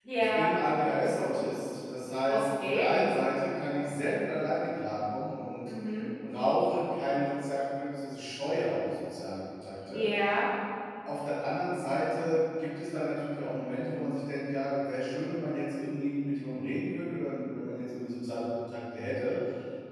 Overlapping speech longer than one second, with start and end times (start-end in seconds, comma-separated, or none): none